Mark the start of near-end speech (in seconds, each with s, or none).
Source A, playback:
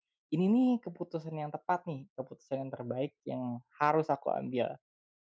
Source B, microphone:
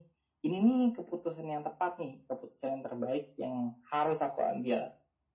none